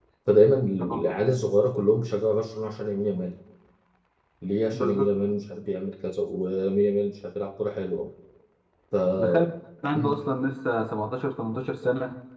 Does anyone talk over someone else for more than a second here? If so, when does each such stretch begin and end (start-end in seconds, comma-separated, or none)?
none